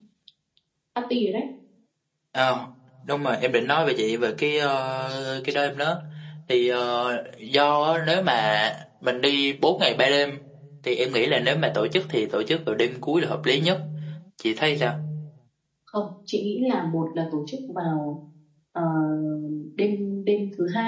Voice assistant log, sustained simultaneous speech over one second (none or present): none